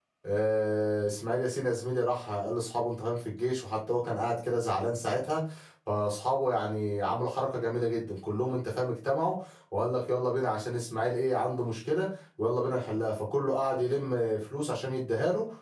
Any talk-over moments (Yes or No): No